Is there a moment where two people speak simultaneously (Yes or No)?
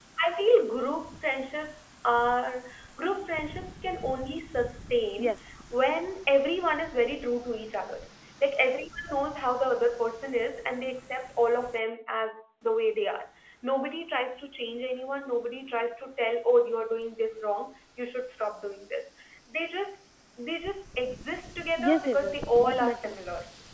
Yes